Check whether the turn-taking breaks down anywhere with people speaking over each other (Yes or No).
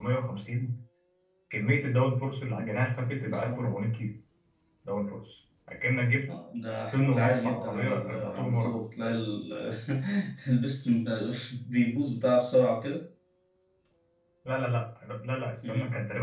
Yes